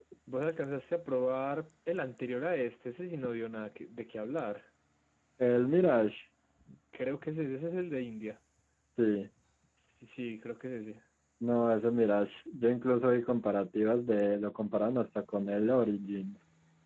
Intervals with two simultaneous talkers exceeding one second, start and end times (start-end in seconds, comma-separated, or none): none